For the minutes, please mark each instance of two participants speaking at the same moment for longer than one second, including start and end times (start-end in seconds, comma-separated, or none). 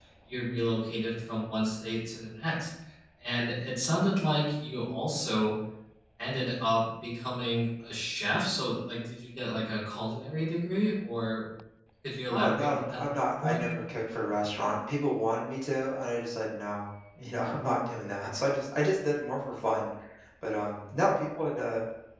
12.3-13.6